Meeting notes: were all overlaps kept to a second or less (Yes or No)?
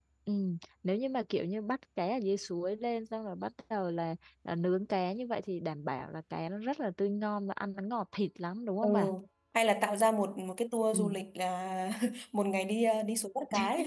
Yes